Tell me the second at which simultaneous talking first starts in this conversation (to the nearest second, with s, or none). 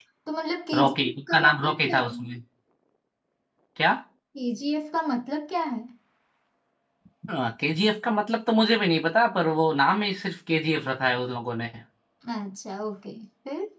1 s